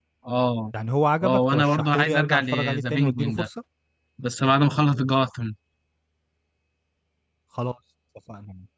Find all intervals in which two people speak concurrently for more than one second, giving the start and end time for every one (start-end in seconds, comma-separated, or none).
1.2-3.5